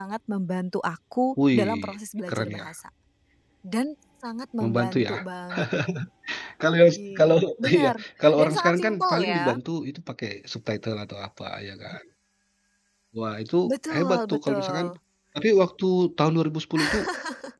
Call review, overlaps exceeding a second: present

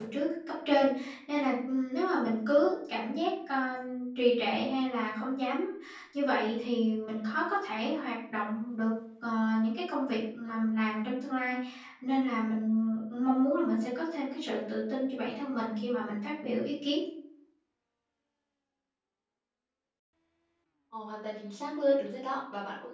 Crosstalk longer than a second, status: none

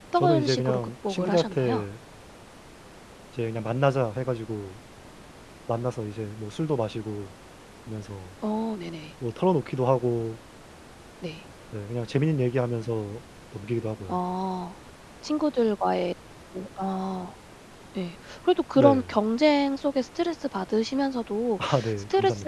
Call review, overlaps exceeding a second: present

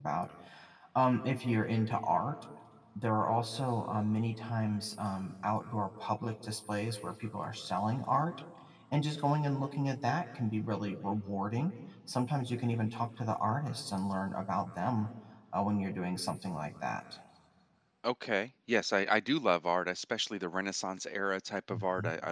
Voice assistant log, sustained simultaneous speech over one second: none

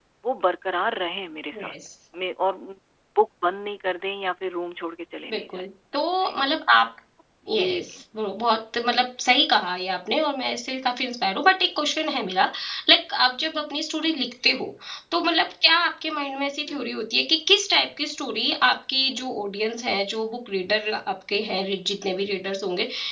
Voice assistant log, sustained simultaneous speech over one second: none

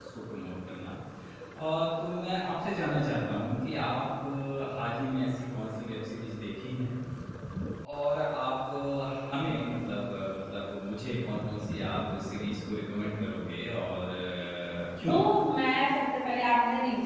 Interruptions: none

